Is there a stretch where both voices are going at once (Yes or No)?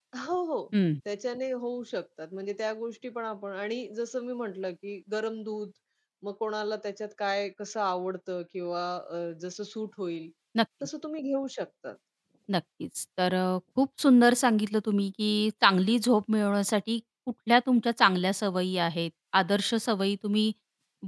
No